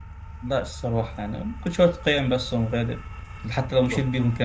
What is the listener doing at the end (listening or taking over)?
listening